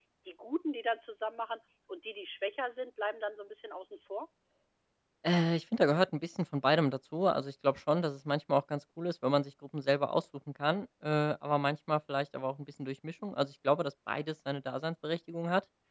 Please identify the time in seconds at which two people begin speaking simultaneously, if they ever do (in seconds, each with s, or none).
none